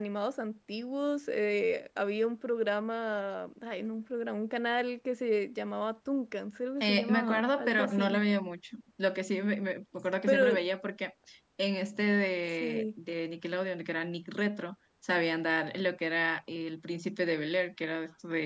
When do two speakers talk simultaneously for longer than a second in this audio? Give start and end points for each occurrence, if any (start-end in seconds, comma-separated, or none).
6.8-8.2